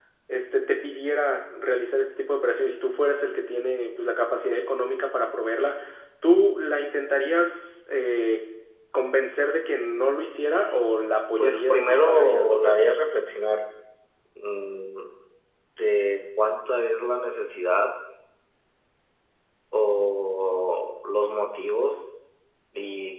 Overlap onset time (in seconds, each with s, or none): 11.4 s